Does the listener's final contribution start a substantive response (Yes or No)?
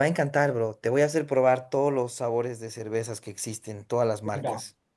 Yes